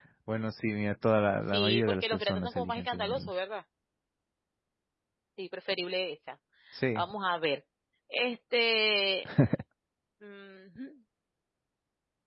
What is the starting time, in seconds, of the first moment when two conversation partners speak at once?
1.5 s

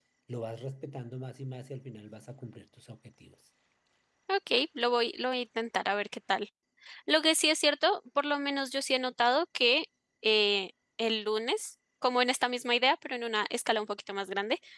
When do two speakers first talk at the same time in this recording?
none

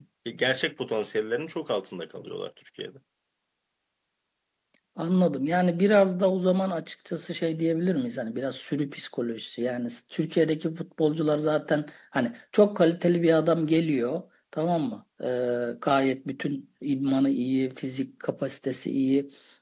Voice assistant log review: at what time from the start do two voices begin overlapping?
none

